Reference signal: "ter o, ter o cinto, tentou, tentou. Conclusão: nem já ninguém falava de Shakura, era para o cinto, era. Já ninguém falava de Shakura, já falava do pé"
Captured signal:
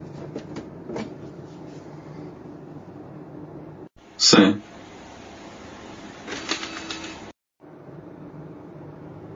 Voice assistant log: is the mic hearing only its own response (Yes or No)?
No